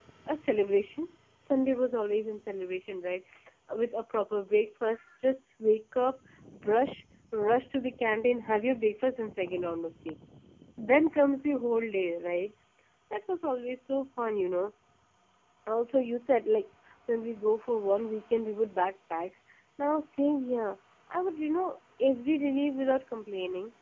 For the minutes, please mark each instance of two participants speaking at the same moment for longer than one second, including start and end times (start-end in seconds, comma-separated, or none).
none